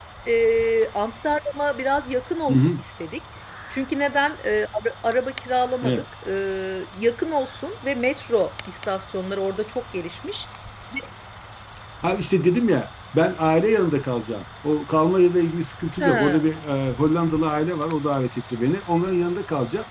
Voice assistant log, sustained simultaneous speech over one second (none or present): none